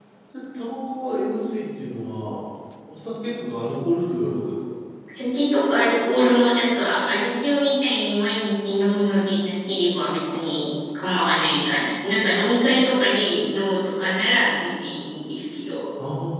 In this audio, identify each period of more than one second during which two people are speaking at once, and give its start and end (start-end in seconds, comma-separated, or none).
none